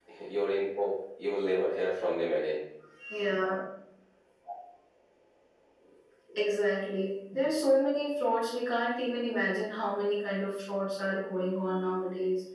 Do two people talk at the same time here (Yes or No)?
No